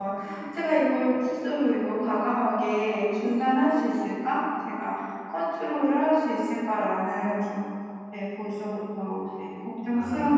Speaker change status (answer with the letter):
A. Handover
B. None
A